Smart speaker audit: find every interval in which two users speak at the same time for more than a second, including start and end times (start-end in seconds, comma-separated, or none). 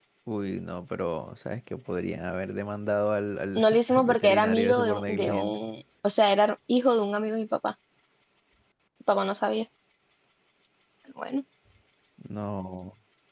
3.5-5.6